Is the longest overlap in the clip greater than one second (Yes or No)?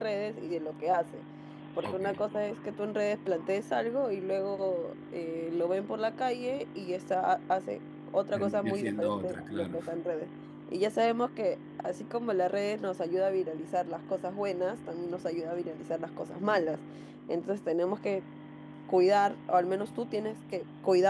Yes